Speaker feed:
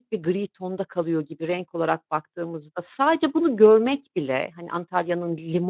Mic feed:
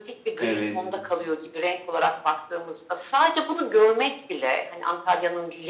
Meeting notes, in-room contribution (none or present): present